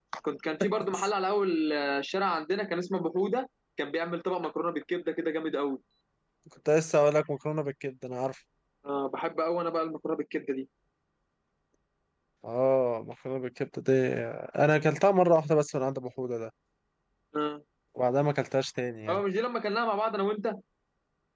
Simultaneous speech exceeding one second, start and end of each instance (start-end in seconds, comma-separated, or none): none